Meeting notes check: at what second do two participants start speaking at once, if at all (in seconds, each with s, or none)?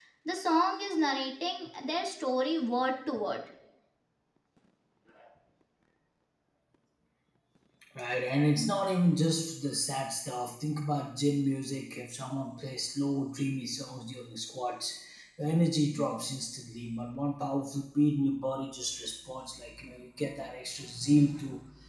none